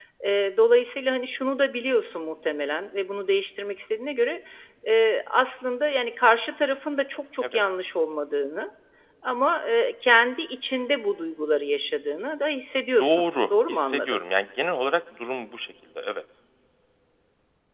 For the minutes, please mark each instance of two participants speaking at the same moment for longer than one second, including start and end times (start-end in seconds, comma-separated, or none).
13.0-14.2